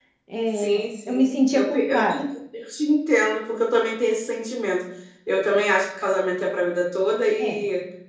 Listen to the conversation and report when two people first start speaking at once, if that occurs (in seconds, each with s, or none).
0.6 s